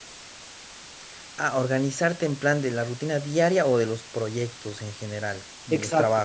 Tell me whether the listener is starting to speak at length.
Yes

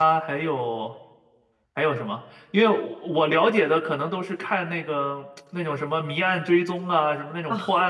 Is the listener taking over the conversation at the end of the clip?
No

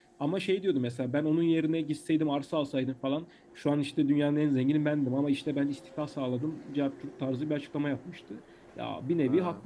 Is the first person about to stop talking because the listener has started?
No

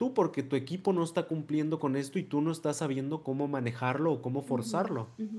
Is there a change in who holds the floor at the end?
Yes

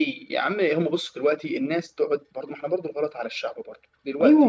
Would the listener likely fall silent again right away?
No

